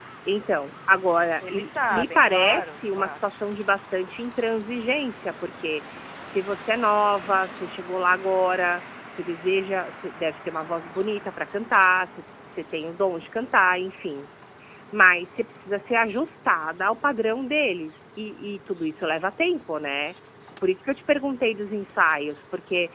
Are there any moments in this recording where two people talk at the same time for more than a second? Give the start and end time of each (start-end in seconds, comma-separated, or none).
1.4-3.2